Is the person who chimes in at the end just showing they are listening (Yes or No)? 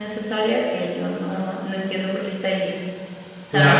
No